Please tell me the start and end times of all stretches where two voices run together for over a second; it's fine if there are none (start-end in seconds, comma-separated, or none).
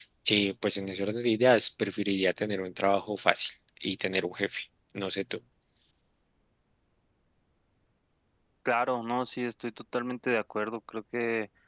none